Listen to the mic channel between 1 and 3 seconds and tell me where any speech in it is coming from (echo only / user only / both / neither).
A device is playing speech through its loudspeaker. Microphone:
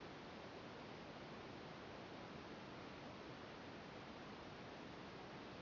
neither